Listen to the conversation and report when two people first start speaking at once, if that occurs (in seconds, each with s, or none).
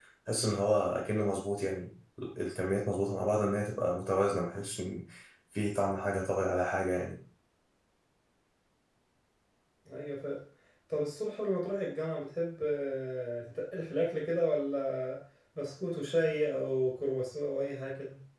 none